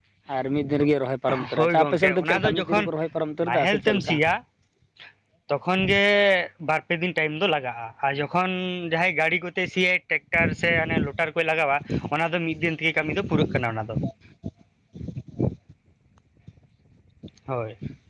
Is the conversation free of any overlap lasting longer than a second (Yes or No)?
No